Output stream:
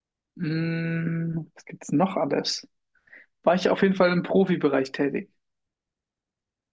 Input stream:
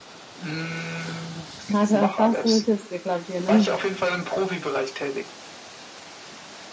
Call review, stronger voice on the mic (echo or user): user